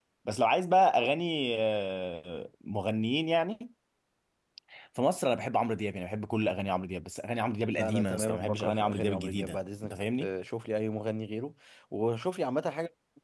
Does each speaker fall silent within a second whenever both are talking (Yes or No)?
No